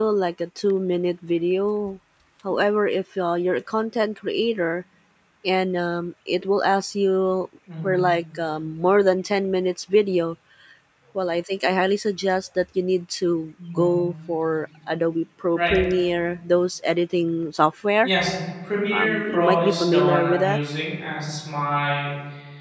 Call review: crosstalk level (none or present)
present